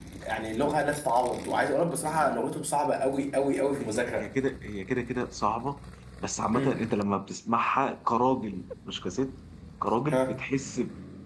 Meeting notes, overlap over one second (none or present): none